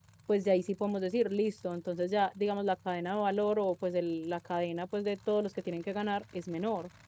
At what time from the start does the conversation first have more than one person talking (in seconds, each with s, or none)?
none